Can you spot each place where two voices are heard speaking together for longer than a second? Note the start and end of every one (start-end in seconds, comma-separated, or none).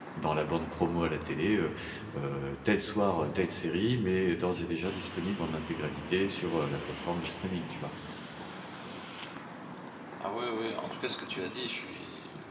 none